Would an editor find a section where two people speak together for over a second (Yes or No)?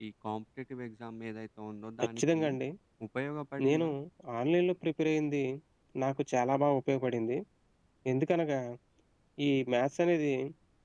No